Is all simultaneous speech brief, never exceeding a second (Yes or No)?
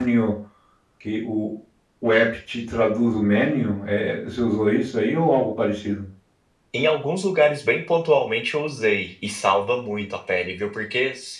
Yes